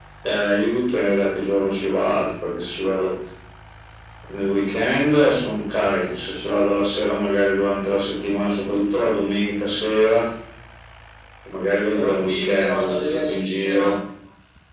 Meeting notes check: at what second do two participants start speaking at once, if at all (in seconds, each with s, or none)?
11.9 s